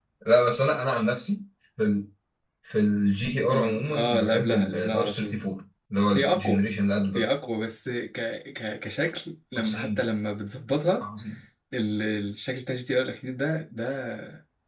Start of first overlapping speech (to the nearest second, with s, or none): 3 s